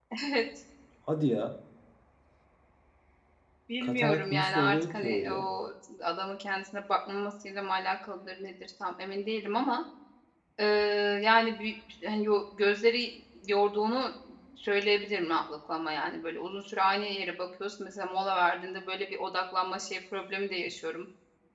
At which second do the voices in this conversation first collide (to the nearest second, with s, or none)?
4 s